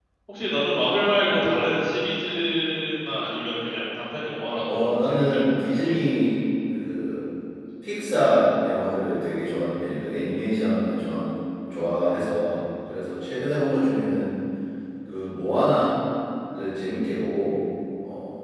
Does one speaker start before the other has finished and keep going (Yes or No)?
Yes